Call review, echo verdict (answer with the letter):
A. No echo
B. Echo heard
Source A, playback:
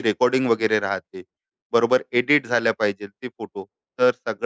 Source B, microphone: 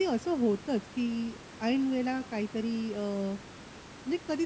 A